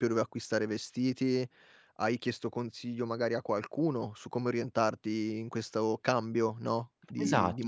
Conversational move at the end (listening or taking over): taking over